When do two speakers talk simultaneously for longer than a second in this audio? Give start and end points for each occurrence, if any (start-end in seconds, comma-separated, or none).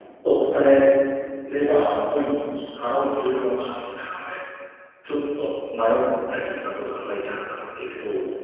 none